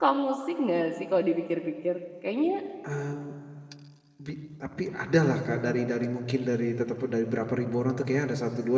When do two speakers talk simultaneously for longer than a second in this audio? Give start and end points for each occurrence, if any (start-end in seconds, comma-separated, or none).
none